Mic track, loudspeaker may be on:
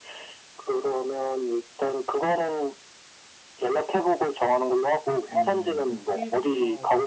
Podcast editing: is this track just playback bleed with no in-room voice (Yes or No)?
No